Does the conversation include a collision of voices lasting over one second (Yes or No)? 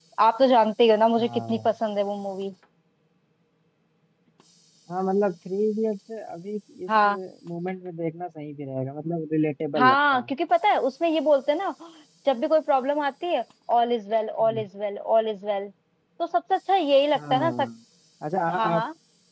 No